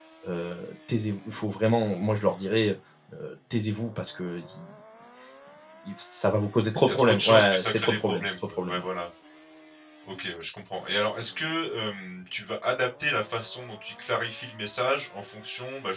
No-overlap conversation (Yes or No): No